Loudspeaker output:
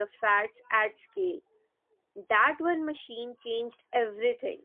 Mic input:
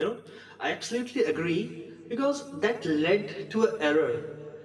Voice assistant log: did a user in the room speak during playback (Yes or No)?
Yes